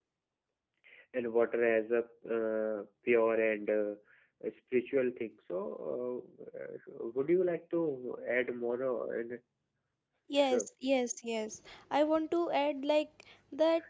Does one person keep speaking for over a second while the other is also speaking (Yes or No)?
No